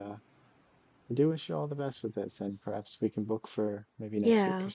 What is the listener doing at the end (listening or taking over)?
taking over